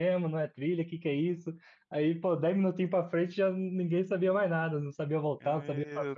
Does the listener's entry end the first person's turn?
Yes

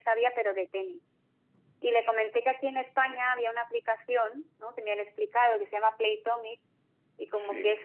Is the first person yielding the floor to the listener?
No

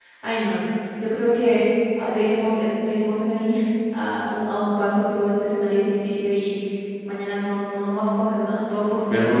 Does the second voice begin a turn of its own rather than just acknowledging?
Yes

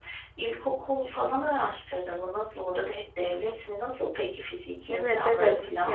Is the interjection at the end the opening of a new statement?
Yes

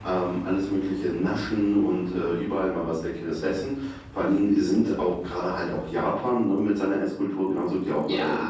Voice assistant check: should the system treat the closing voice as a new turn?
No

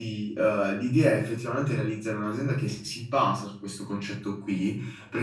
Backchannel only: Yes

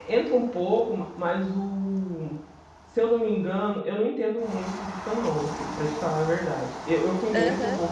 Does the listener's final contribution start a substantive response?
No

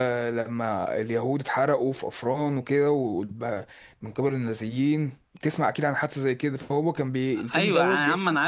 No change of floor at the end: No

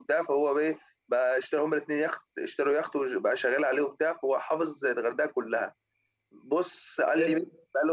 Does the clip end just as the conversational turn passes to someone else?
No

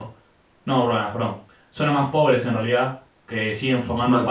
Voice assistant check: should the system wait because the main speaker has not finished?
Yes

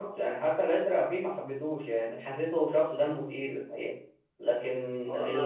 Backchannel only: No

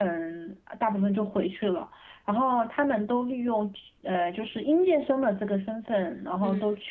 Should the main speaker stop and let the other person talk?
No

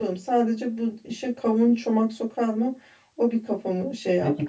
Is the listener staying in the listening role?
No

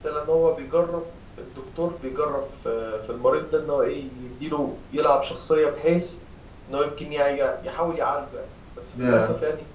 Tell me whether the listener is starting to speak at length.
No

